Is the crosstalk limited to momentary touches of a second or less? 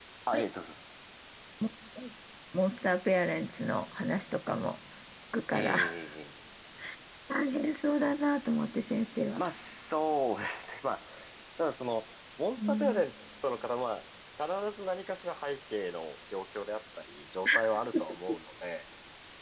Yes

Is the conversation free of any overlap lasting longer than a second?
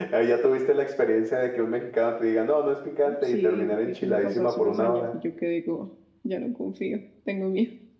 No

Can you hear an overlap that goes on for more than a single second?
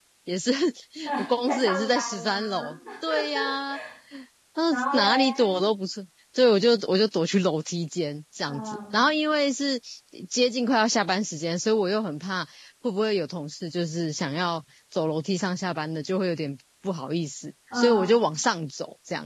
Yes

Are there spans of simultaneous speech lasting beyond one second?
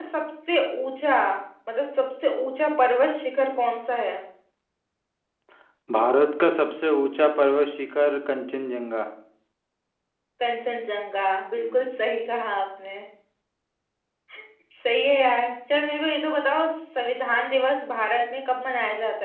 No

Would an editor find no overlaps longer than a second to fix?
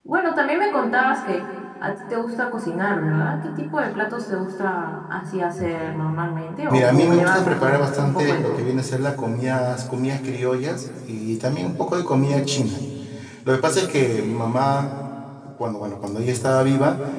No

